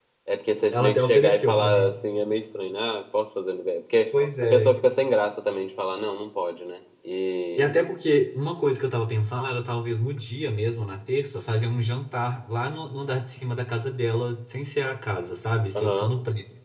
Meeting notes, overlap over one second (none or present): present